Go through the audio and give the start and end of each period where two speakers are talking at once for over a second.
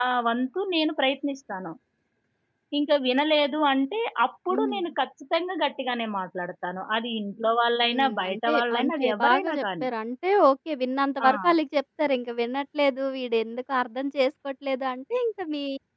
7.8-9.9

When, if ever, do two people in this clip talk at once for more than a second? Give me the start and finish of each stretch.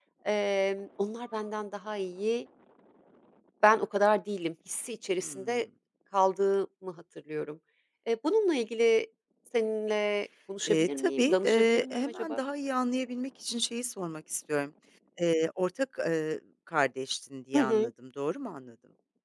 10.6-12.4

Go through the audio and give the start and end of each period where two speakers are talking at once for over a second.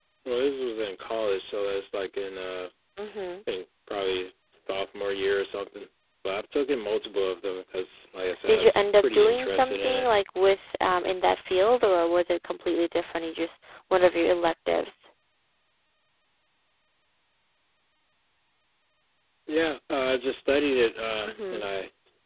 8.5-10.1

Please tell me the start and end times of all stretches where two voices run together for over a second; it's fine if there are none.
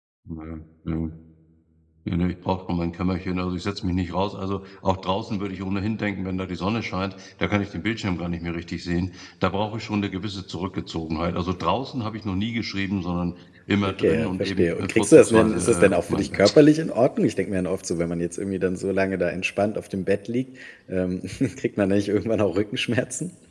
13.9-16.5

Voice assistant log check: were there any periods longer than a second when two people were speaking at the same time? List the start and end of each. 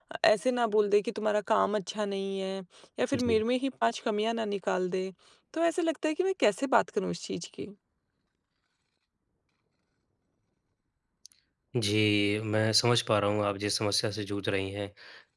none

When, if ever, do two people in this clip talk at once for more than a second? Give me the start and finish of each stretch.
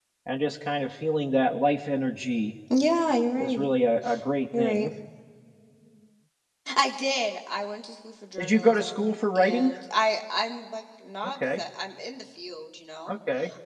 8.4-9.7

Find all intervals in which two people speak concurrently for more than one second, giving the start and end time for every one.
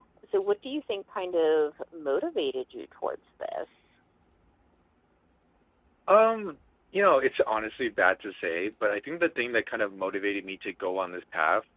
none

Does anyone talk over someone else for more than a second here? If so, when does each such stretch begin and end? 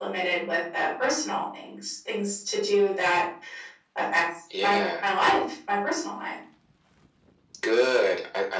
none

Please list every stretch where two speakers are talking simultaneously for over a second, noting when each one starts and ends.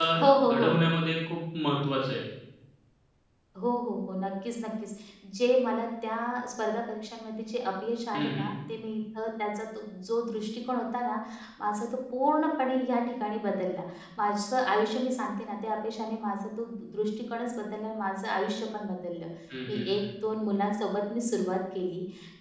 none

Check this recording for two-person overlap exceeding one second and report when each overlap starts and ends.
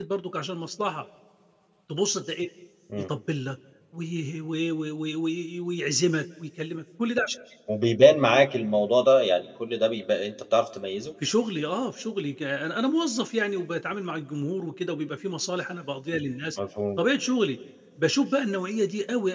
none

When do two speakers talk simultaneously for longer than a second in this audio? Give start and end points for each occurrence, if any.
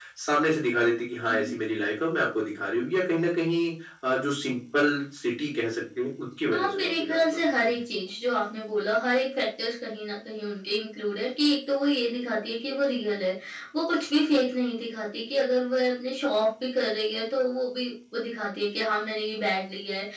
6.5-7.8

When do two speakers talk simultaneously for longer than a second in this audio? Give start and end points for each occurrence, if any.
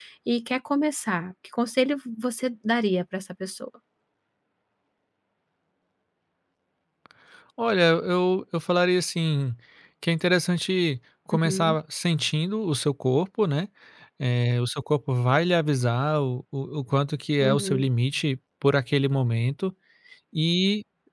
none

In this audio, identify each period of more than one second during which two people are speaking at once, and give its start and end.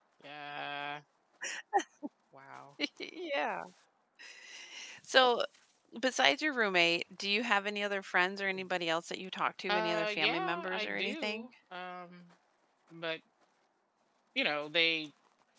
9.7-11.5

